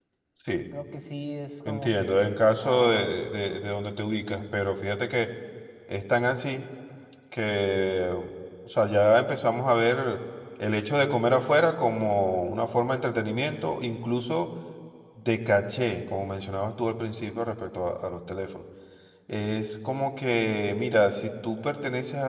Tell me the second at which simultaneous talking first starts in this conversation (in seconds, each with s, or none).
1.6 s